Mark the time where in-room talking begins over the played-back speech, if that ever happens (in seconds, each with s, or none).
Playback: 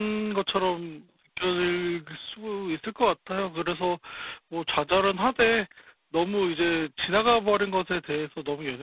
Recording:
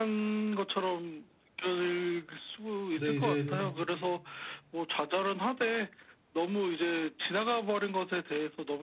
2.9 s